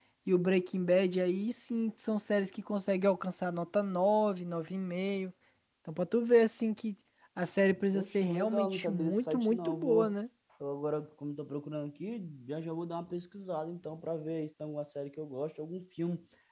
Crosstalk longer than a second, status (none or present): present